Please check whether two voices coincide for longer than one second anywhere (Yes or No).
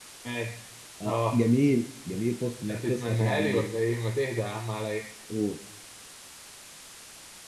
Yes